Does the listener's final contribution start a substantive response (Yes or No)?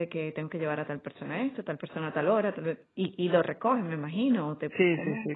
Yes